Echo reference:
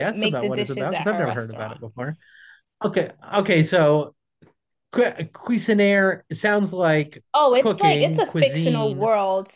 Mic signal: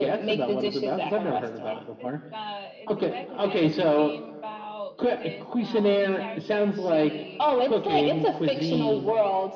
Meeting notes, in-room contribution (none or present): present